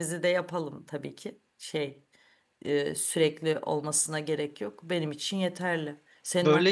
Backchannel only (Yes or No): Yes